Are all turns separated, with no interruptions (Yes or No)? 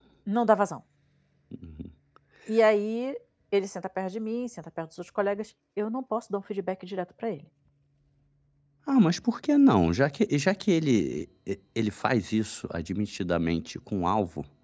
Yes